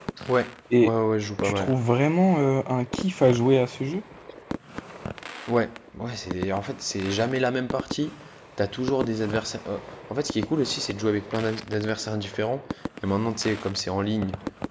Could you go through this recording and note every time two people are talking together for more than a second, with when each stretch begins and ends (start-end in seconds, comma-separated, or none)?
none